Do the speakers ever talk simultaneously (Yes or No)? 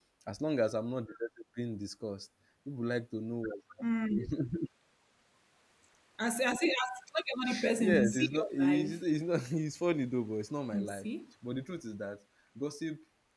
Yes